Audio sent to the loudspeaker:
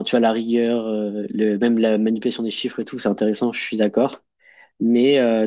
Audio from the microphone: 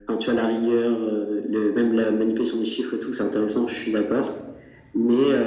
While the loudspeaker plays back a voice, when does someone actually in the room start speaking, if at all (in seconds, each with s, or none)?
none